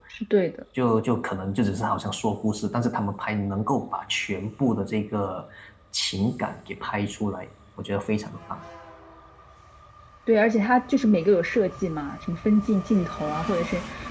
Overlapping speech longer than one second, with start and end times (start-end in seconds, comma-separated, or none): none